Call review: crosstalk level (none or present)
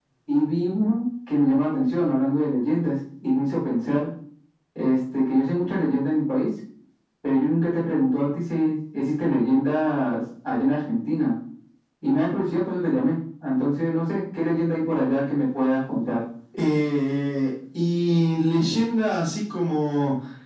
none